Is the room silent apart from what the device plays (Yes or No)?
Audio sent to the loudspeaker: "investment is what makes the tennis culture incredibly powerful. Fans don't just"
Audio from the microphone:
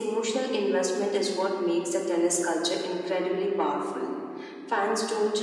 Yes